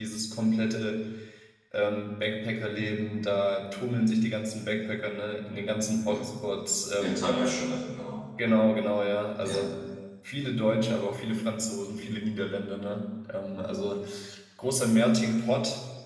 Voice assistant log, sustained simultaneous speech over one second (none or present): none